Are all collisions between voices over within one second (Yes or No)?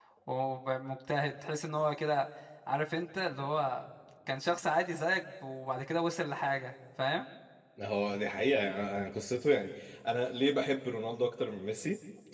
Yes